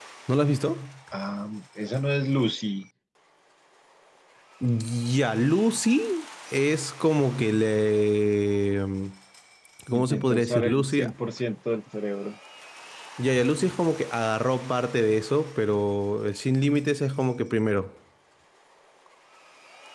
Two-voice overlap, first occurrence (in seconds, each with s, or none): 9.9 s